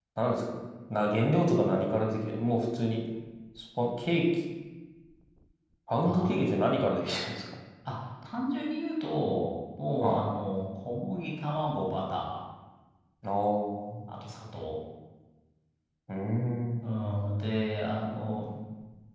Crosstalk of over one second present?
No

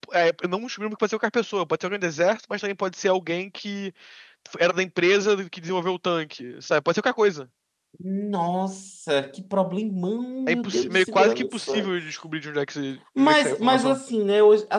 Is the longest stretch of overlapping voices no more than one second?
No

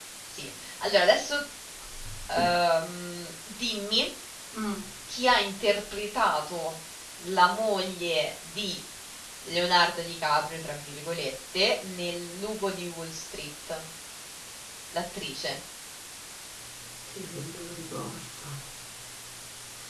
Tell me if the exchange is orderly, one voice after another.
Yes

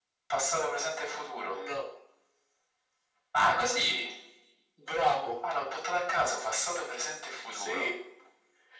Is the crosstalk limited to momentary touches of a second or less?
Yes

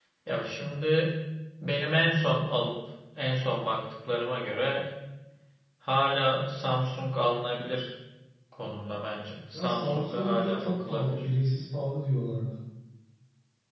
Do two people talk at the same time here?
Yes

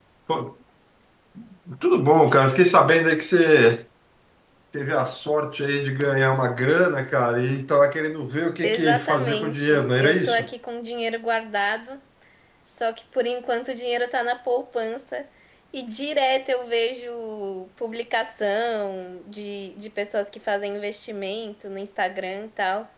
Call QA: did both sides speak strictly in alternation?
No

